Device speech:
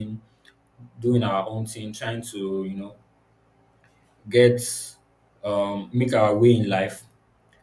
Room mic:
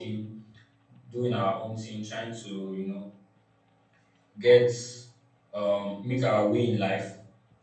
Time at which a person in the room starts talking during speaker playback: none

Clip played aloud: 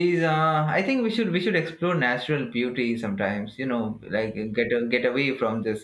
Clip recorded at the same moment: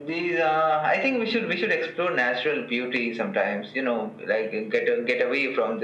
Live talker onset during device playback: none

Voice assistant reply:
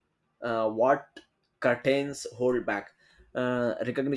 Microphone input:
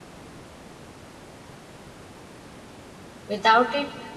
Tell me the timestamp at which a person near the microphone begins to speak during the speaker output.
3 s

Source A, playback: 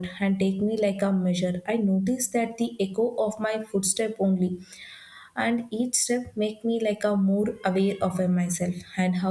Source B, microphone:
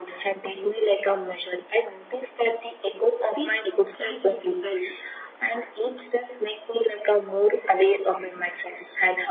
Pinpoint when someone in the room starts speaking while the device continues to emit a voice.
3 s

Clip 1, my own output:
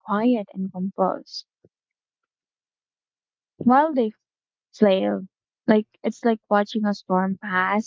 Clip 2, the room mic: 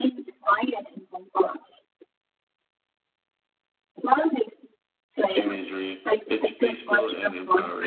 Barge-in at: 5 s

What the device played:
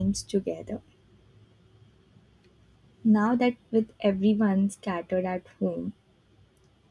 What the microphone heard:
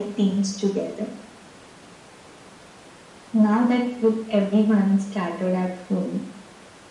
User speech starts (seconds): none

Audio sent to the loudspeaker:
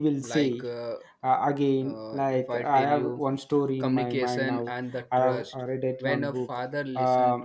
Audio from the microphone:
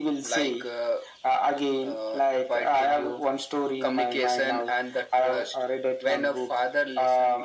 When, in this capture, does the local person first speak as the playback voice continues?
none

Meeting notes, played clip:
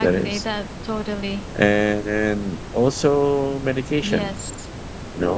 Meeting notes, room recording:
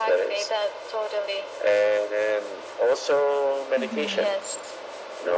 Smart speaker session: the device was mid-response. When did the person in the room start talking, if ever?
4 s

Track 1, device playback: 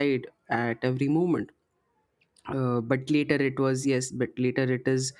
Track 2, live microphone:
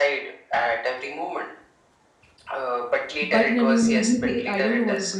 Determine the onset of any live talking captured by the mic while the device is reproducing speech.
3 s

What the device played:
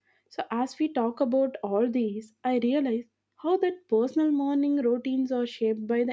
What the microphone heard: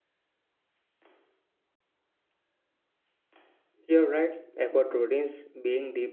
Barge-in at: 4 s

